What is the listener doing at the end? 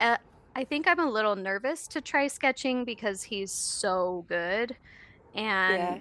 listening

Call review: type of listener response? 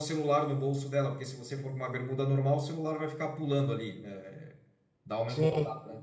listening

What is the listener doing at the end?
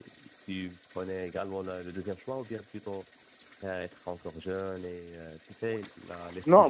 taking over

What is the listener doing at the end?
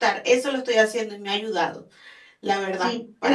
taking over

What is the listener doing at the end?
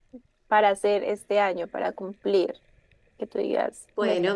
taking over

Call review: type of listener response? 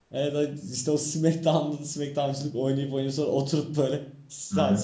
listening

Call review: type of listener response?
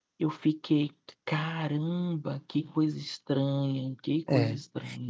taking over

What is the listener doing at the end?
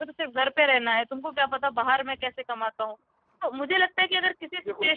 listening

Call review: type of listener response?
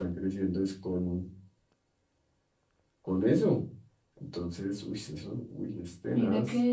taking over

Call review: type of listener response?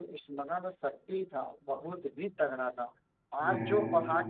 listening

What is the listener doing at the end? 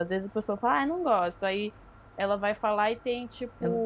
listening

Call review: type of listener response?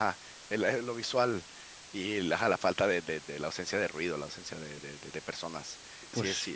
listening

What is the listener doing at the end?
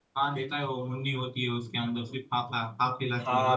taking over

